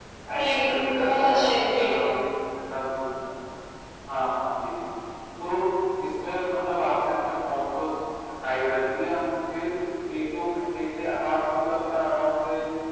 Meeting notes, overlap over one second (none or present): present